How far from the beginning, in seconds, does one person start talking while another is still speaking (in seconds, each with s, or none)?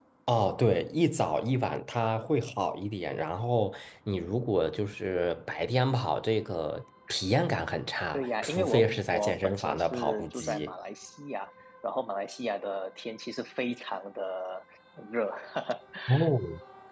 8.1 s